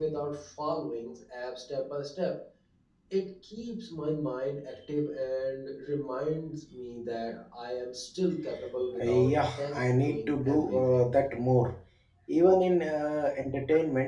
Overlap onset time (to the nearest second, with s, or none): 9 s